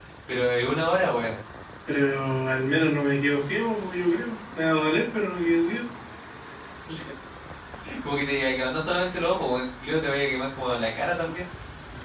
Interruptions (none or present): none